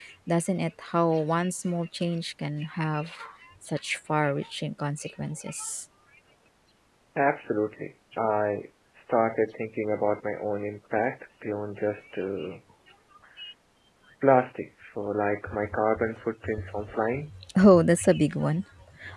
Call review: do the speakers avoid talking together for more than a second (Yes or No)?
Yes